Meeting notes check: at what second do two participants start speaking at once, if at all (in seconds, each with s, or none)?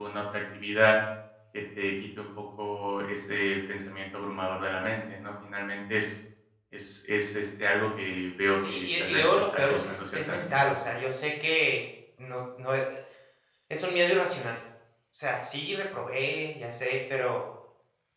8.6 s